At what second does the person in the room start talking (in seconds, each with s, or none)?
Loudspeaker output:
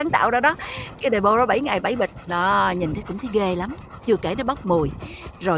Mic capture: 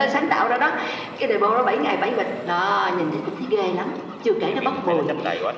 4.5 s